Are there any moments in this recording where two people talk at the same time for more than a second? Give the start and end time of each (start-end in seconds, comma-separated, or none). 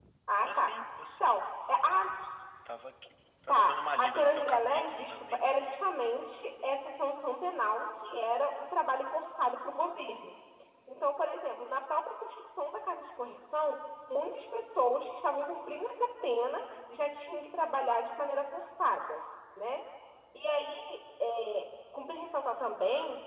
3.5-5.4